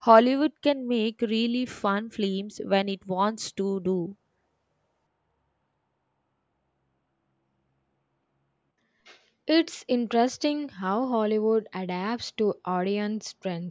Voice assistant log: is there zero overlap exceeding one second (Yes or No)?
Yes